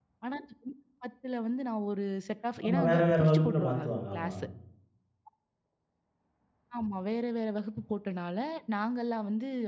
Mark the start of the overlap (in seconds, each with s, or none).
2.6 s